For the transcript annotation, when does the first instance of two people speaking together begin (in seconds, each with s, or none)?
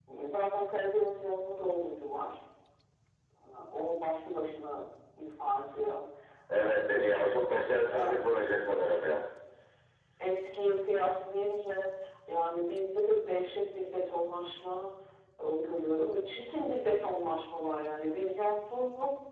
6.6 s